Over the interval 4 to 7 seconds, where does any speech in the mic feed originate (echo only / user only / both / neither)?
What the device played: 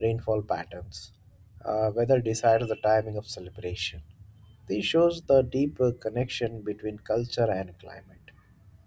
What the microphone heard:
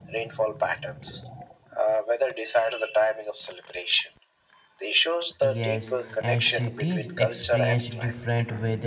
both